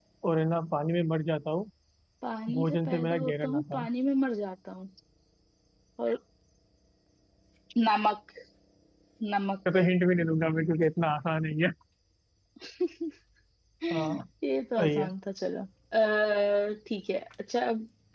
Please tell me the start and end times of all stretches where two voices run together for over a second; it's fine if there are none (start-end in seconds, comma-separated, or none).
2.5-3.9